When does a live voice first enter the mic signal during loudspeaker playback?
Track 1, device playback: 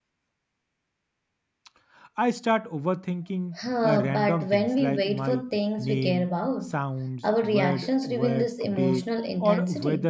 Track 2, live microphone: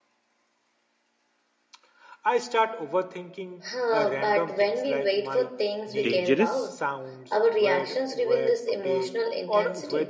6.0 s

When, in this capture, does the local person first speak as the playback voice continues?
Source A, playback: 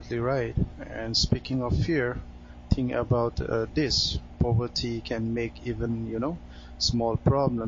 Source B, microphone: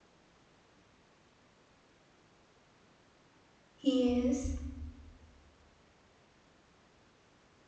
3.8 s

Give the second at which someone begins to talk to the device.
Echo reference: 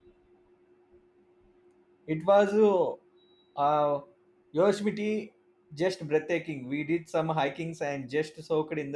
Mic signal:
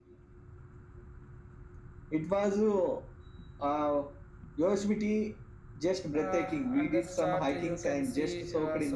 6.1 s

